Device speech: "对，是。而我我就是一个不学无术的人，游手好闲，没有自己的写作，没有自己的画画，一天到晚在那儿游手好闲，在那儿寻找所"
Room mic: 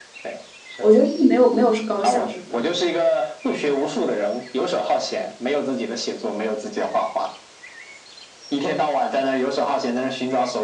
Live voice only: 我觉得这没有没有是高下之分，

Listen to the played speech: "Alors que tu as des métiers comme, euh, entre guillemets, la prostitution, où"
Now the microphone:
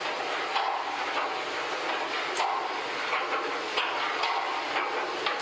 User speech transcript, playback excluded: none

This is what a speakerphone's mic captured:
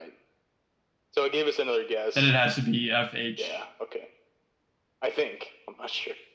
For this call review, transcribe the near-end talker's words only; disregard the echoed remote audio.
Then it has to be FHK.

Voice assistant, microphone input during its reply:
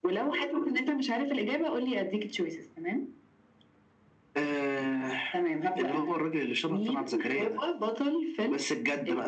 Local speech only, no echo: none

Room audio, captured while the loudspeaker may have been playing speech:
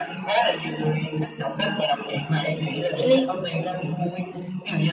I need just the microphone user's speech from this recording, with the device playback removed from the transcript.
Thế Linh.

